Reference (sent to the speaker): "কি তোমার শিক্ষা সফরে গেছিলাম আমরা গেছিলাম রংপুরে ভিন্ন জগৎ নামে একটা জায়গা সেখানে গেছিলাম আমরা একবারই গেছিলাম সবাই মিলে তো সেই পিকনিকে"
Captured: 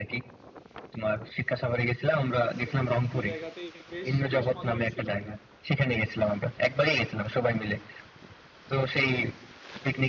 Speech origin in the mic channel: both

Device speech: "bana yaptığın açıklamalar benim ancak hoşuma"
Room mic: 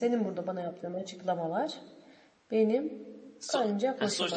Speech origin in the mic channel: both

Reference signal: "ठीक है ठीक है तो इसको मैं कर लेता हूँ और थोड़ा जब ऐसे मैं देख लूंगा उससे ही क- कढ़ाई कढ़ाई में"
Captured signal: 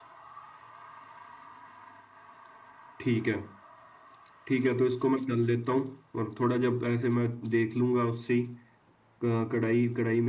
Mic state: echo only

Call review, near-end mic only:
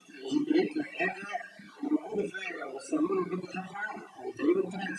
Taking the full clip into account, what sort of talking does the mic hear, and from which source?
echo only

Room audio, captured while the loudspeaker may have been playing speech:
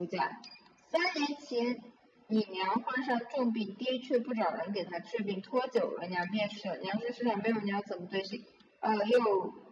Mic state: echo only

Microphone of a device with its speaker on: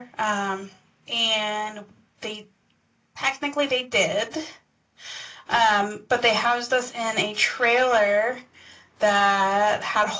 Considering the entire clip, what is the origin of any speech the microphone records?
echo only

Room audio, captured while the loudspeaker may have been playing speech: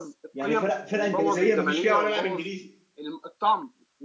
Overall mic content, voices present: both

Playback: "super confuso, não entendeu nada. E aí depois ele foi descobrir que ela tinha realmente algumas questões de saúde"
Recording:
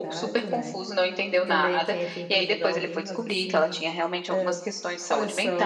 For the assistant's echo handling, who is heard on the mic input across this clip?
both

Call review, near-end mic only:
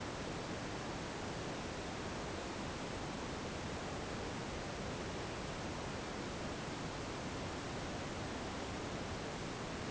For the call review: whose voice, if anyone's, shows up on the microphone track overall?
neither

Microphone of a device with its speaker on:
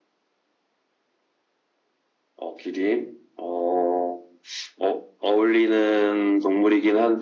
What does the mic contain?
echo only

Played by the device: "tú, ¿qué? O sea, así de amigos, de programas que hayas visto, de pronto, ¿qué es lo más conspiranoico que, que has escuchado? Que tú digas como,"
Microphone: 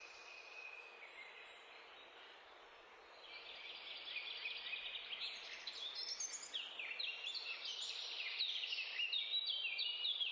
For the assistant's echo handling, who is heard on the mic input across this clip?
neither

